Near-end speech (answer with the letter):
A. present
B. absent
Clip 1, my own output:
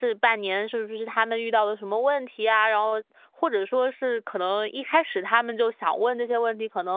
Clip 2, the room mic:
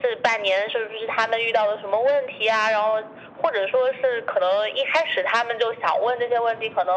B